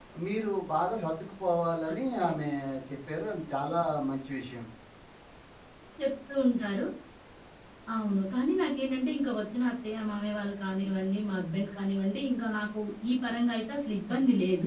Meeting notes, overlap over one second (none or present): none